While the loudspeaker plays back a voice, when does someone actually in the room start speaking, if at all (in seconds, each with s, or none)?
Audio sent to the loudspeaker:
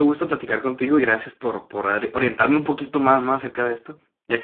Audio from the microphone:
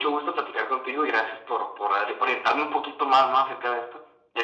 none